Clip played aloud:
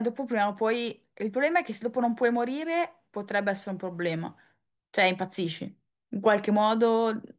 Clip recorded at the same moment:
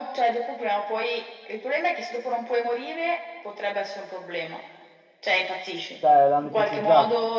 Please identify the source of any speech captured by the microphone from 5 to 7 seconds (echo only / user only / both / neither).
both